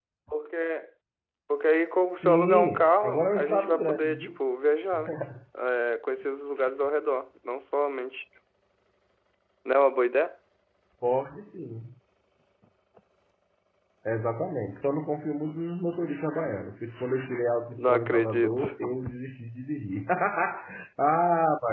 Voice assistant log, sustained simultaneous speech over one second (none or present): present